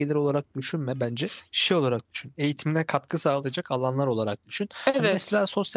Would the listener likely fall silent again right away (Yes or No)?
Yes